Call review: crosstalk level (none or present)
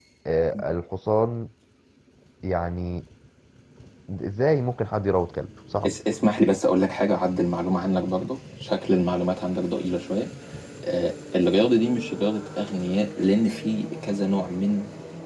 none